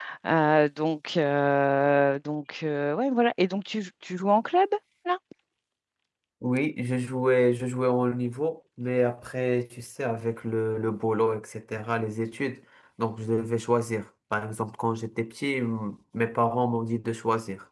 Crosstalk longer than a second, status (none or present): none